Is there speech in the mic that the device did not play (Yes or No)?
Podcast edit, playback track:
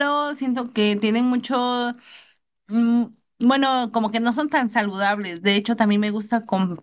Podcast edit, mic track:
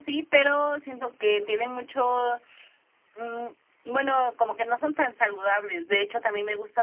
No